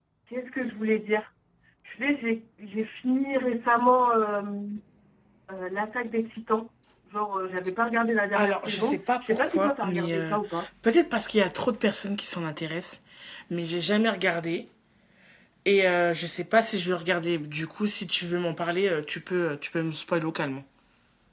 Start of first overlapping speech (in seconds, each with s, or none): 8.3 s